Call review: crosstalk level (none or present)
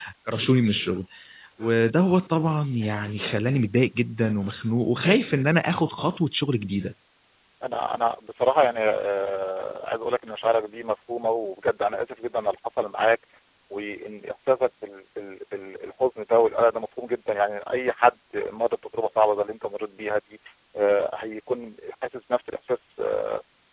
none